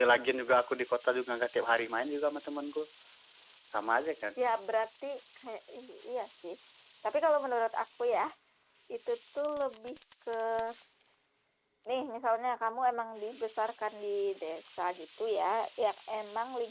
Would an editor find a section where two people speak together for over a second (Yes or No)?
No